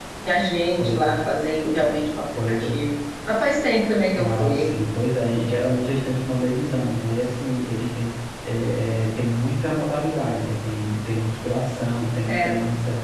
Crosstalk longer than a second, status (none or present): none